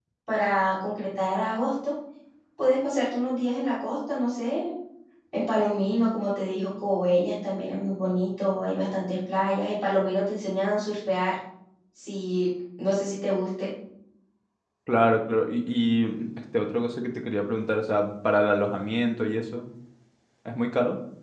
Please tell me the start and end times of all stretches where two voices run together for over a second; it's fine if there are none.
none

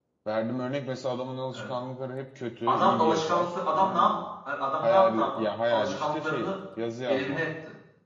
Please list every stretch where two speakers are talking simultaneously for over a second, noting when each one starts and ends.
2.7-4.2, 4.8-6.5

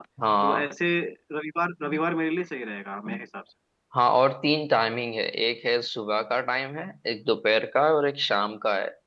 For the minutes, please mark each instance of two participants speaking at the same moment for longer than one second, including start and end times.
none

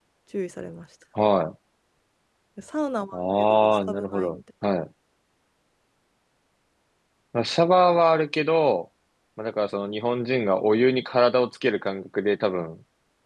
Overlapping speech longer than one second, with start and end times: 3.1-4.3

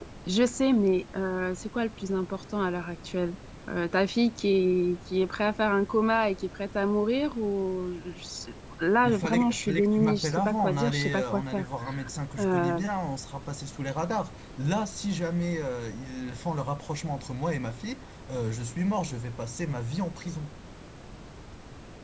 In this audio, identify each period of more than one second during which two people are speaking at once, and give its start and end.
9.0-11.7

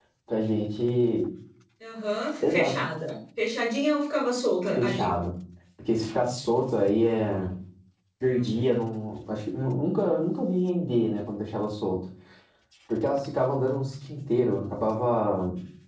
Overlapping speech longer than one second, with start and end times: none

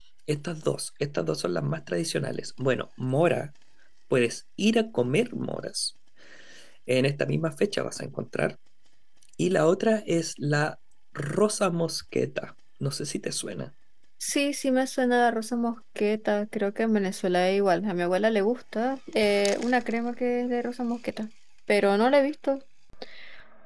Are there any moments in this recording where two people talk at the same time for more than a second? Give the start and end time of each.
none

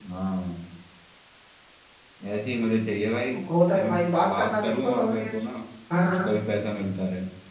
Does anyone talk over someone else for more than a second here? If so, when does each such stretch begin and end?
3.7-5.3

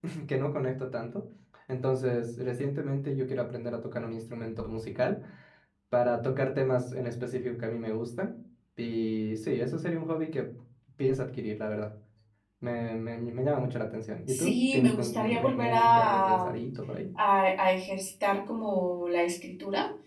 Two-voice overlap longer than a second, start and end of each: 14.3-16.6

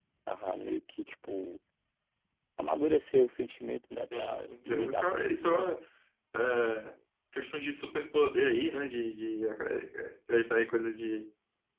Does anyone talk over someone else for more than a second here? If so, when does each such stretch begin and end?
4.1-5.7

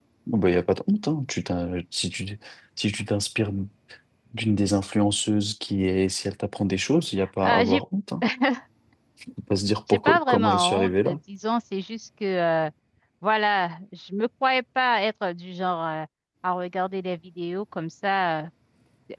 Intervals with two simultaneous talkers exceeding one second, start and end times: 9.9-11.2

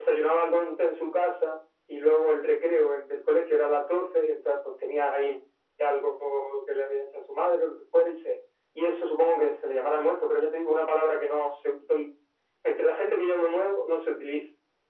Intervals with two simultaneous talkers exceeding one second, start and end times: none

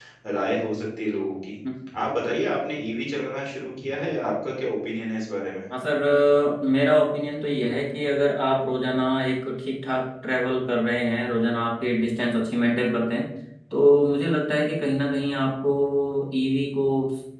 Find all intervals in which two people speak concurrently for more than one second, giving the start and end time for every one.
none

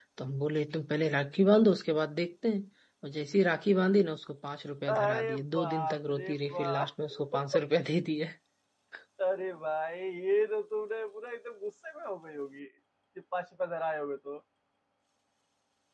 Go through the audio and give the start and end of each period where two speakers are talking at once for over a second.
4.9-6.9

